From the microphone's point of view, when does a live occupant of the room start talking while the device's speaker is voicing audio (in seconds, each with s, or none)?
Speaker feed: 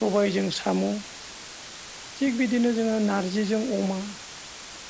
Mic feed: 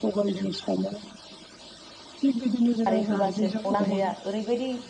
2.9 s